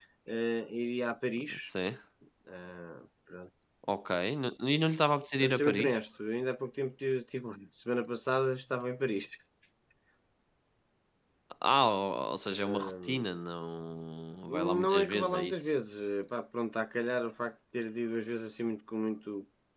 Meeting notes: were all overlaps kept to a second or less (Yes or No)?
No